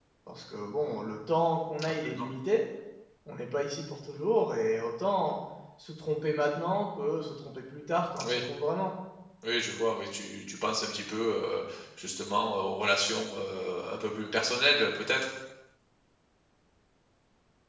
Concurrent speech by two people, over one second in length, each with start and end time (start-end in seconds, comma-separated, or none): none